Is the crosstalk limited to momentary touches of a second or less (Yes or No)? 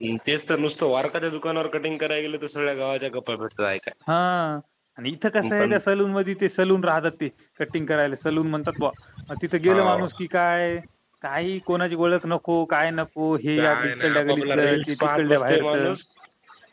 No